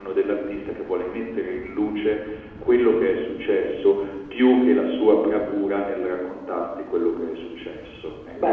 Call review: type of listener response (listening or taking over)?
taking over